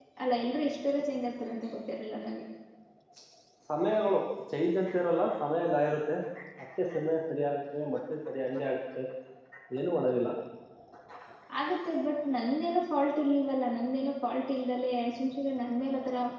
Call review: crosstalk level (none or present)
none